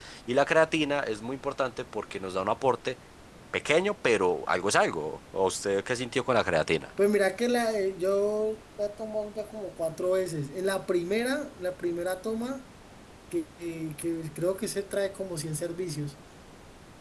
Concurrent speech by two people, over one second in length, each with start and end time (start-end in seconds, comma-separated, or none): none